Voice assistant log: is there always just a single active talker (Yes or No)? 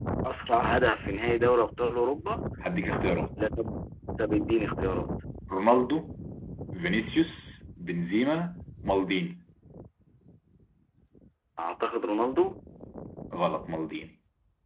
Yes